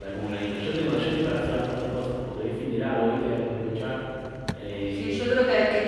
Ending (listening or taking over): taking over